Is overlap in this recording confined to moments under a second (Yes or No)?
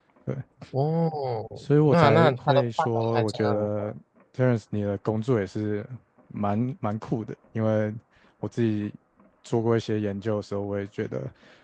No